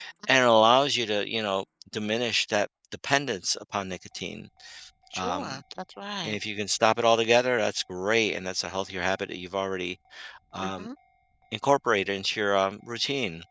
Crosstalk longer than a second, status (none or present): none